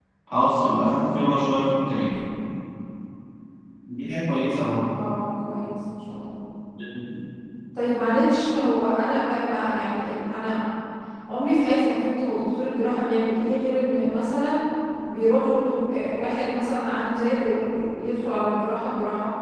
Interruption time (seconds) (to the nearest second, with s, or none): none